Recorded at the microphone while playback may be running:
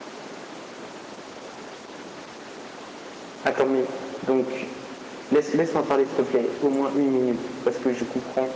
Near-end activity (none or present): present